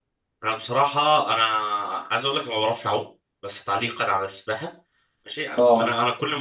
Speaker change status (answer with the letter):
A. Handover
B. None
B